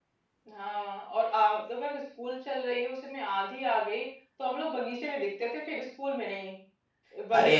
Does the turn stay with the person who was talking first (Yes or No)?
Yes